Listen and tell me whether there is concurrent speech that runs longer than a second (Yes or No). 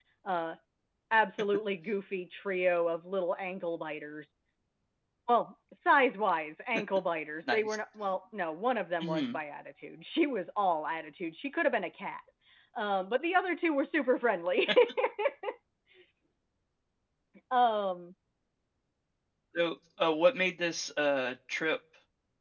No